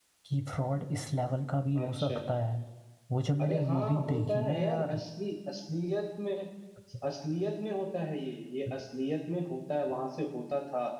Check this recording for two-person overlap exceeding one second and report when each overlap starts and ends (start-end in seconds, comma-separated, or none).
3.4-5.0